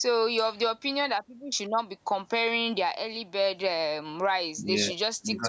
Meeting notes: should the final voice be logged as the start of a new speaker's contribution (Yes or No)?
Yes